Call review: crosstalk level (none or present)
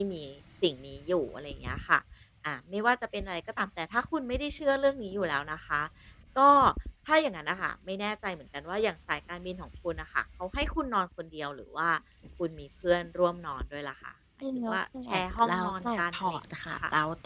present